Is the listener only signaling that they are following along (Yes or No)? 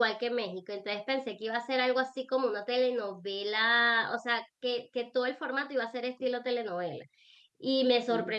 Yes